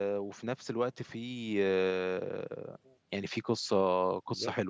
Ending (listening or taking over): taking over